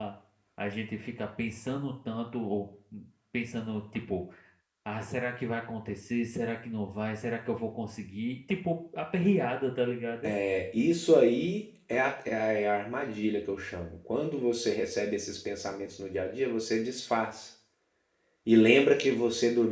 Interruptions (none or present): none